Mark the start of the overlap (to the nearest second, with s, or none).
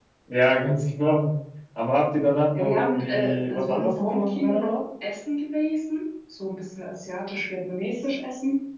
3 s